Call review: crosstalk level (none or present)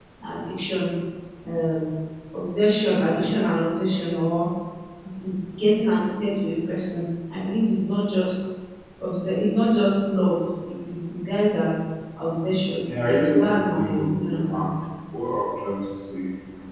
present